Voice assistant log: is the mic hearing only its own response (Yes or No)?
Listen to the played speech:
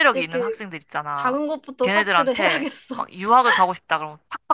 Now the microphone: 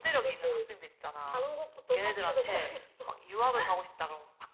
Yes